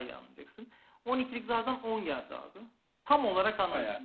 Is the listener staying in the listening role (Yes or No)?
Yes